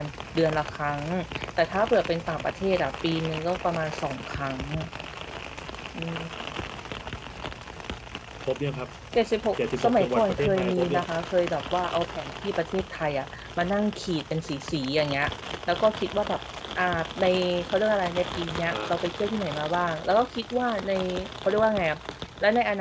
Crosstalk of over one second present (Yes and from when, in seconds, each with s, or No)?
Yes, from 9.8 s